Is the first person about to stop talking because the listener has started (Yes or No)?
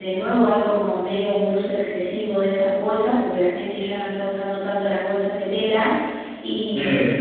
No